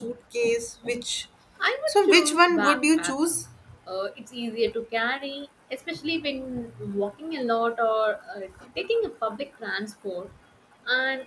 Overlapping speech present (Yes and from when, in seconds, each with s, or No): Yes, from 1.9 s